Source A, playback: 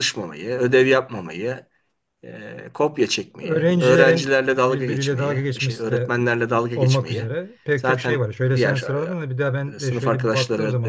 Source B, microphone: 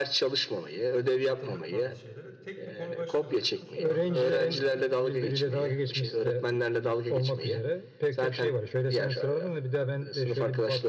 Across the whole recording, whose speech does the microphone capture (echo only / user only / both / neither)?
both